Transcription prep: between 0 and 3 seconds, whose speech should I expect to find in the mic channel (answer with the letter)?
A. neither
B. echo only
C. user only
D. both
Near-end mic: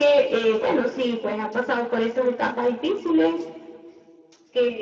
B